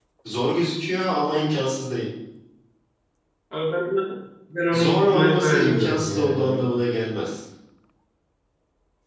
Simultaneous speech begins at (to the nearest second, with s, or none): 5 s